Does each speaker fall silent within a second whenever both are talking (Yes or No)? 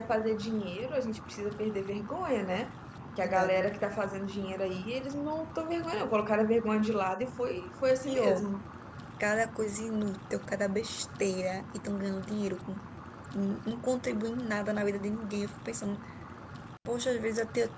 Yes